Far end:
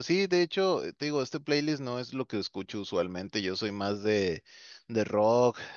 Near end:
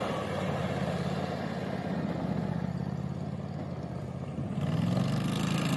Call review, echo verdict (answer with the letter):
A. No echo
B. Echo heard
A